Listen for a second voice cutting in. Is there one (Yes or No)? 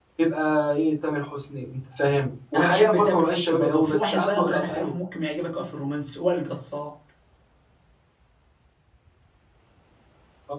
Yes